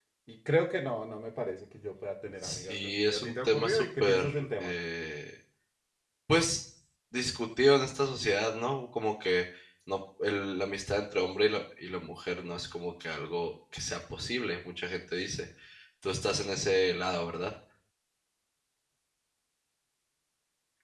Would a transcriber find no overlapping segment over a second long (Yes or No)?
No